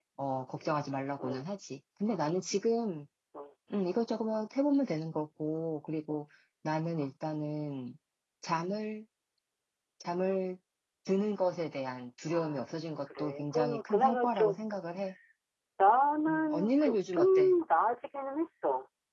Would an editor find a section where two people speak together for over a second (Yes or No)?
Yes